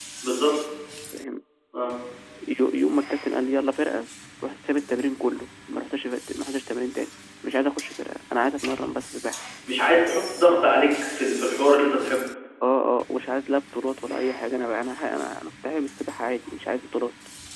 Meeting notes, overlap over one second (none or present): none